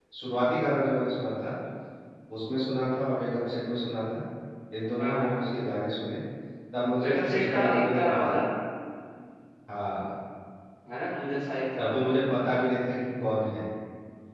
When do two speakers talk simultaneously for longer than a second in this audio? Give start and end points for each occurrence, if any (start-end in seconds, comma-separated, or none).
7.0-8.3